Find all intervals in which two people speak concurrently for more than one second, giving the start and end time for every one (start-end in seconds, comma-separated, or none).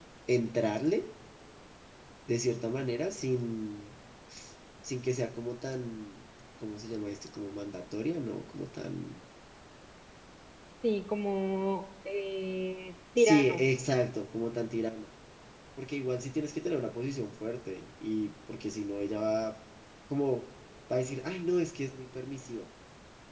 none